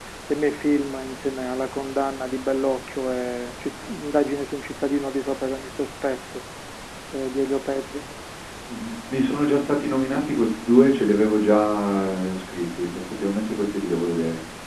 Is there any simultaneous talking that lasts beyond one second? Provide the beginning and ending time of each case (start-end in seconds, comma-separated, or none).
none